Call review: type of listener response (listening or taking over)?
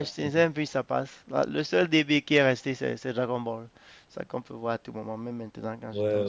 taking over